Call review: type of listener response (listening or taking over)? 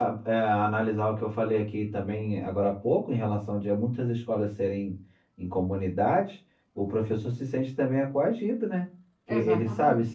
listening